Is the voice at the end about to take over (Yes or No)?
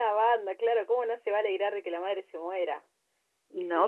Yes